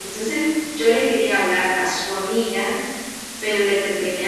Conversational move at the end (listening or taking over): listening